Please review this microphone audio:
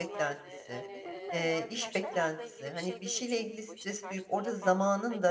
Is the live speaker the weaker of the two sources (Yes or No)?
No